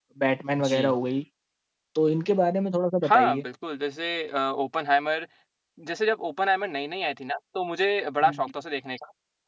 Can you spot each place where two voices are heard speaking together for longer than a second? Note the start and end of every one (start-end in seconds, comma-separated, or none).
none